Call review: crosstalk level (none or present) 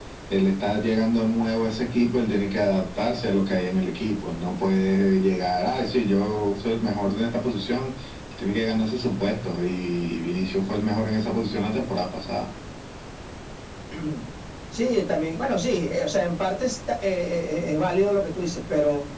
none